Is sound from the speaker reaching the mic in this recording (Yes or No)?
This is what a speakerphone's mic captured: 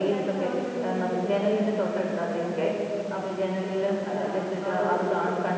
Yes